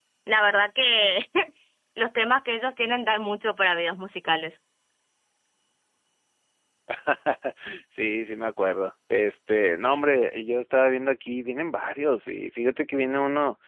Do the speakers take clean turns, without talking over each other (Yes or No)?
Yes